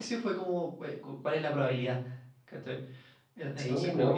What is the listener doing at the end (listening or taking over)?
taking over